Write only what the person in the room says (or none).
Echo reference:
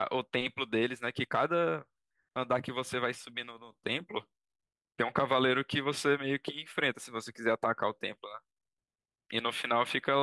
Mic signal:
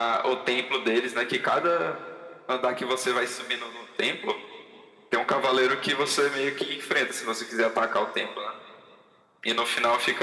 none